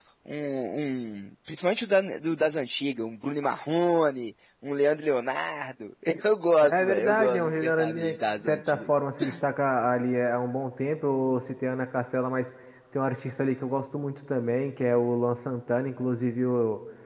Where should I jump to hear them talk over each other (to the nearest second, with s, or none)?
7 s